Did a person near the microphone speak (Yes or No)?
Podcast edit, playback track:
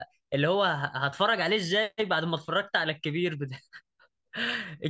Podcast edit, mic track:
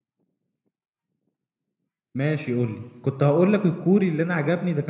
Yes